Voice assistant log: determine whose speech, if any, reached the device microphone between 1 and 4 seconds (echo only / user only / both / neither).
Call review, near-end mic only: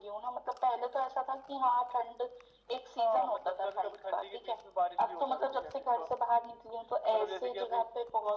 echo only